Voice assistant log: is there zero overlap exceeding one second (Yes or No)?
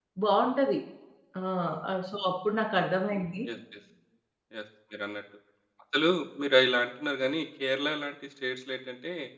Yes